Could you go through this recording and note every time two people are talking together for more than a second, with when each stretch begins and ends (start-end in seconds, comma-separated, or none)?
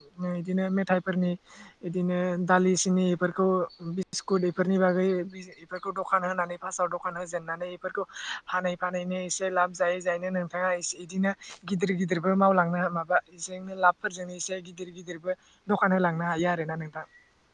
none